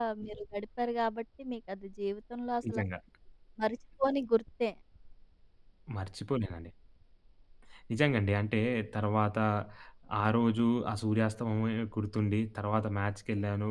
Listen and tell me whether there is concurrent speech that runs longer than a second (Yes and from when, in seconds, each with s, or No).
No